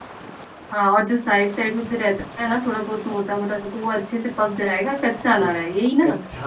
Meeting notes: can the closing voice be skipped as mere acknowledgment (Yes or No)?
No